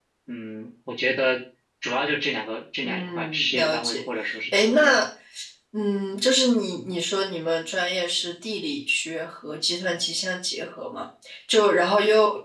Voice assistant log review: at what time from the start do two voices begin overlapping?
2.8 s

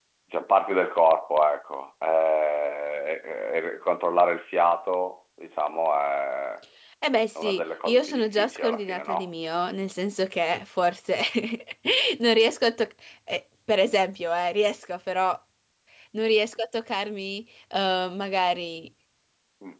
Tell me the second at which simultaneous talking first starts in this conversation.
7.4 s

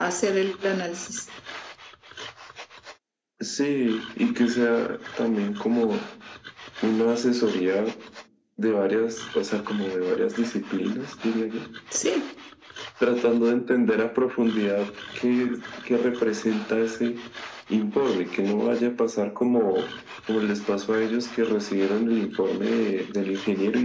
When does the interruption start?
none

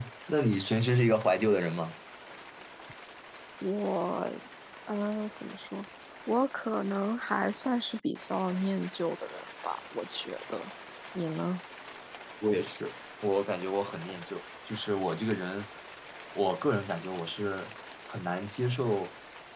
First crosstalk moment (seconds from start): none

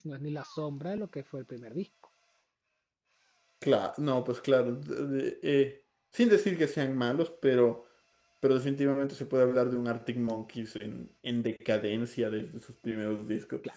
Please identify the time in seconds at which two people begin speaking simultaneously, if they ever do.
none

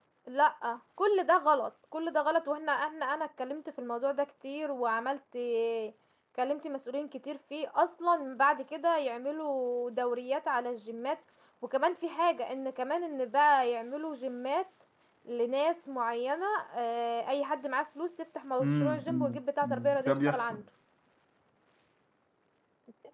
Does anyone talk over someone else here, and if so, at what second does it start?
18.6 s

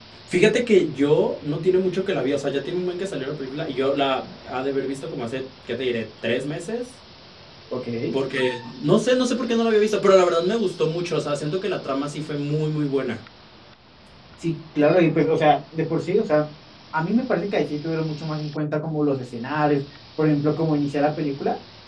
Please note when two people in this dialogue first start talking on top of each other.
none

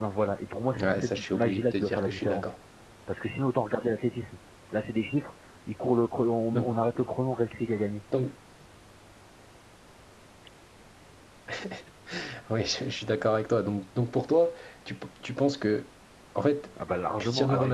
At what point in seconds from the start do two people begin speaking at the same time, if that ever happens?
0.8 s

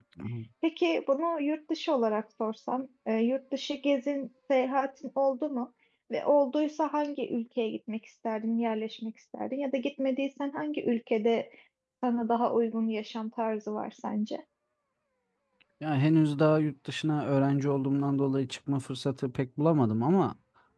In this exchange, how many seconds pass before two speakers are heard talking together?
none

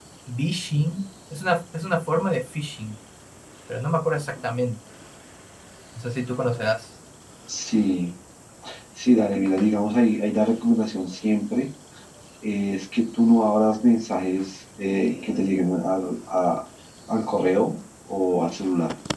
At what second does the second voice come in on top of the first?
none

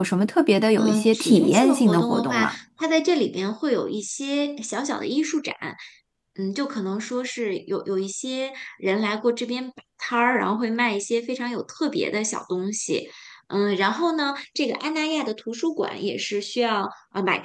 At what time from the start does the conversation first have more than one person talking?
0.8 s

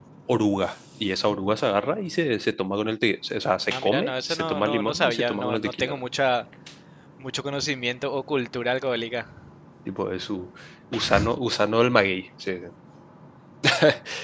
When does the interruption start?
3.7 s

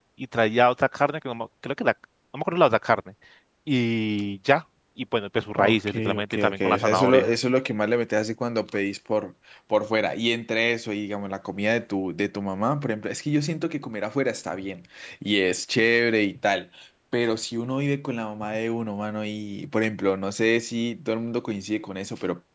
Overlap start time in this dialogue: 5.5 s

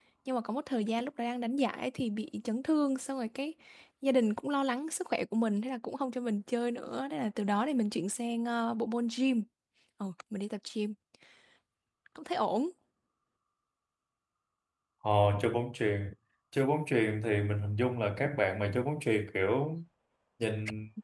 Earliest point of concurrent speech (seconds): none

